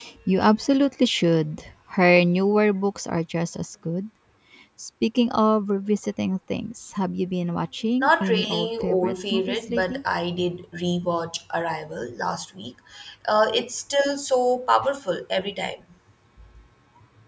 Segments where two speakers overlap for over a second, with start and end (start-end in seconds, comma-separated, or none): 8.0-10.0